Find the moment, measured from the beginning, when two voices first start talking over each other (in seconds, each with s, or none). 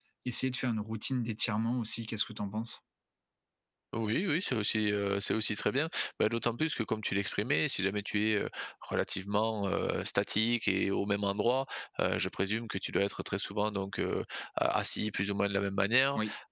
none